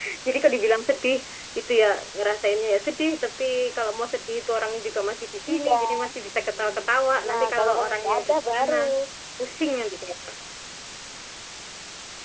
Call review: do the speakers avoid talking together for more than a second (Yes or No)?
No